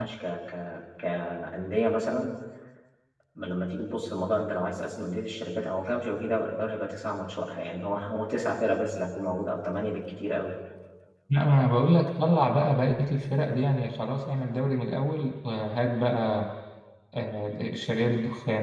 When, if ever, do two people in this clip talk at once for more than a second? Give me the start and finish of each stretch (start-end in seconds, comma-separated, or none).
none